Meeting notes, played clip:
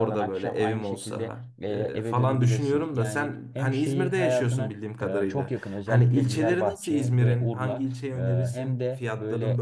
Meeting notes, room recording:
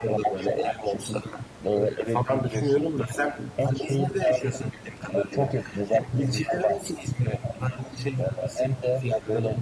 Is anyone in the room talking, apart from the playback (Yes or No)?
No